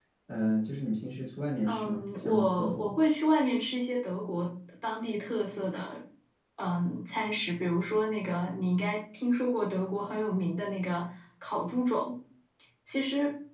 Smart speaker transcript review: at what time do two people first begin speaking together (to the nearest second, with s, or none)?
2 s